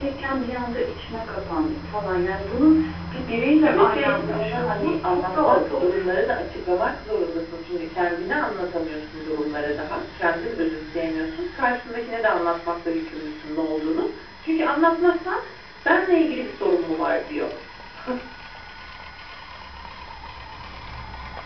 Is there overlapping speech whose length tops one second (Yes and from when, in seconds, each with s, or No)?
Yes, from 3.6 s